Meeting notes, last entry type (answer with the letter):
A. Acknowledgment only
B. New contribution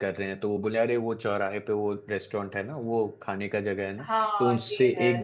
B